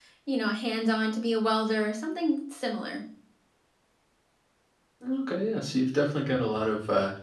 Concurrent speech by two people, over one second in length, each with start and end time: none

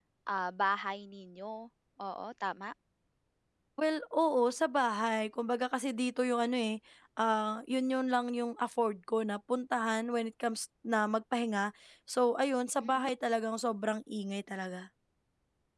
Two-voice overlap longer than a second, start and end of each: none

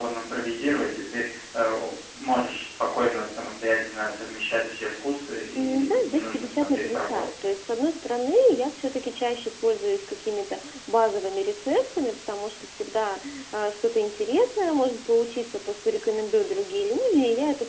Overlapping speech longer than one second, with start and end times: 5.6-7.5

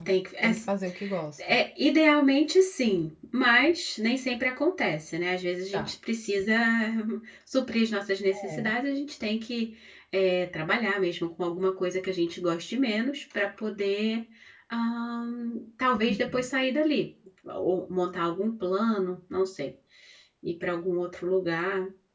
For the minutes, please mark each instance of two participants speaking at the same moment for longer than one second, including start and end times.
none

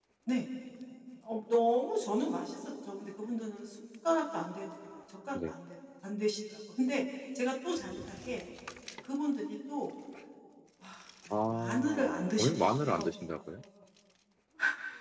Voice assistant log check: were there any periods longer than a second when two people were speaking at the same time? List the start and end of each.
11.5-13.1

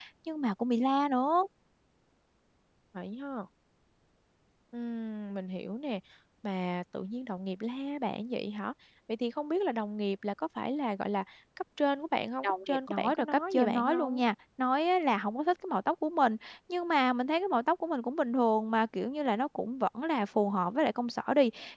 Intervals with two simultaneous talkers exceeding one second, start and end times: 12.4-14.2

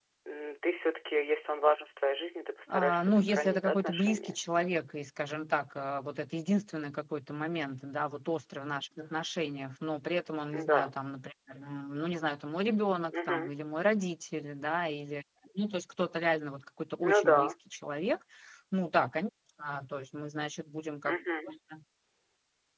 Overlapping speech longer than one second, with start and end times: 2.7-4.4

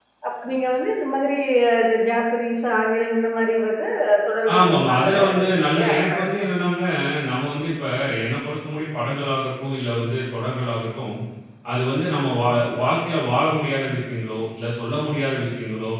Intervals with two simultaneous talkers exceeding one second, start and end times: 4.5-6.2

